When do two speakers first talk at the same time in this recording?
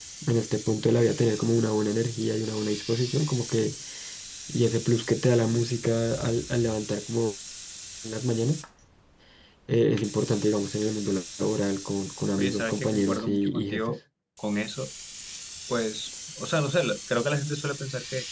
12 s

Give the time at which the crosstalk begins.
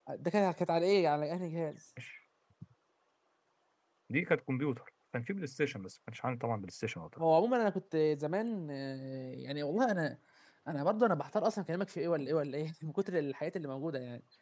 none

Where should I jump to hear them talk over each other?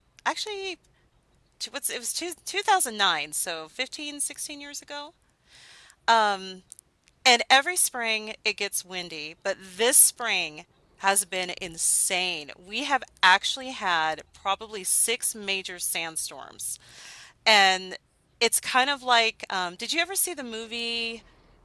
none

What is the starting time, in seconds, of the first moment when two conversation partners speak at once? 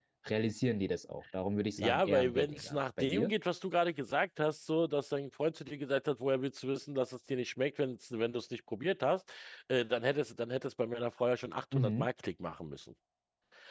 2 s

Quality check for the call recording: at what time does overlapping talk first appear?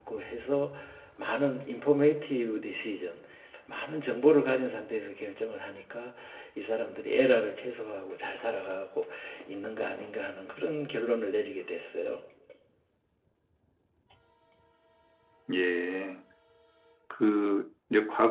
none

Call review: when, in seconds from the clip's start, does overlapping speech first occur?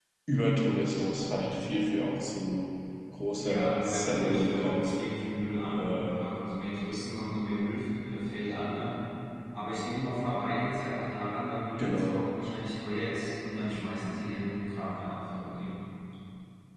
3 s

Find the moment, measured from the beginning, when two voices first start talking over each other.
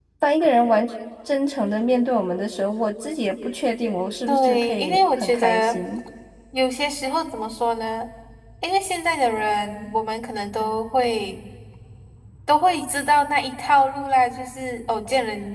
4 s

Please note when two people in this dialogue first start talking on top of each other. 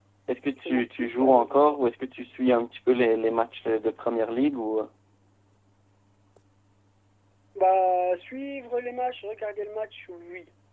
1 s

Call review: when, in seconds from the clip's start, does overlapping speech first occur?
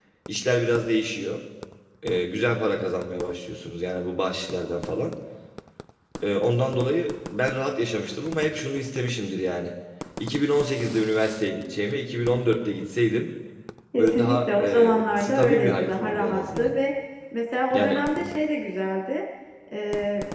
14 s

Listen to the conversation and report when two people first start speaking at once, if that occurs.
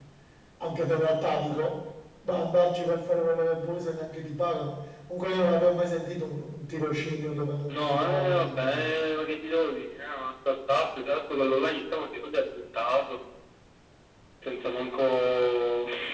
8 s

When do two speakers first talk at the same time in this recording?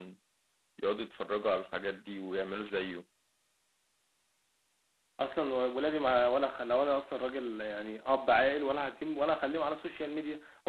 none

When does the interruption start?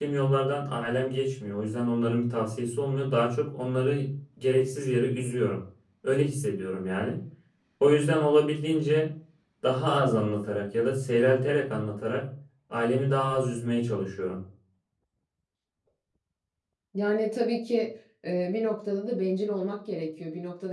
none

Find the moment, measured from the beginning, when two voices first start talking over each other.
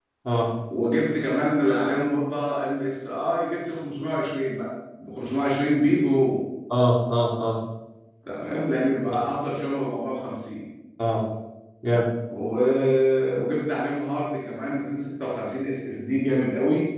none

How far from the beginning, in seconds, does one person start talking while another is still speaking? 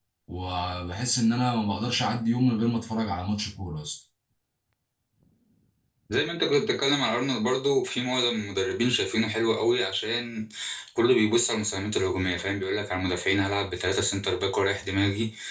none

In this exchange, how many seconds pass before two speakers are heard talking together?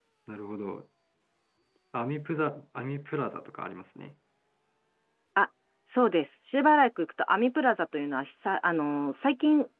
none

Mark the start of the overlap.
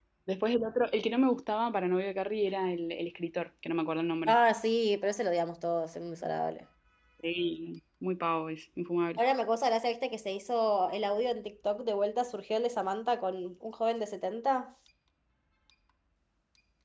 none

